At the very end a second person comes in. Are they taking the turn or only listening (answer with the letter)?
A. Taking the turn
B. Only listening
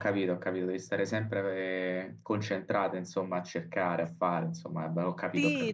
A